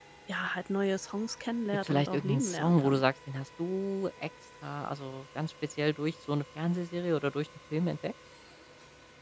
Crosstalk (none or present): present